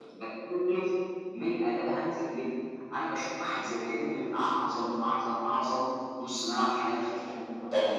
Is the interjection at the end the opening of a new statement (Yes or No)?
No